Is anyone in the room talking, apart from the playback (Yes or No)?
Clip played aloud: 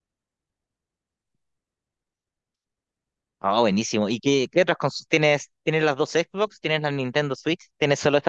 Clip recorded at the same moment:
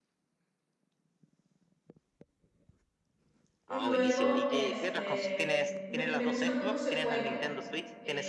Yes